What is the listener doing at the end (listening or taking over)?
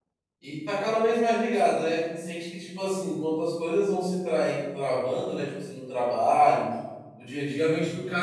listening